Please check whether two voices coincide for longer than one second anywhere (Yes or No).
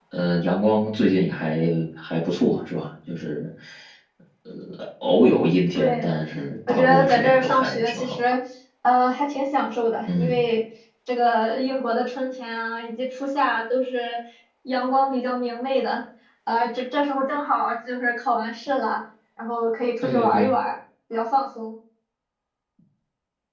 Yes